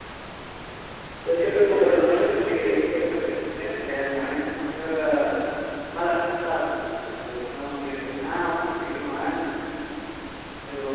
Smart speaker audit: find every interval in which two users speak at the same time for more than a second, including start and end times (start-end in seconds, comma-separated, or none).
1.3-3.0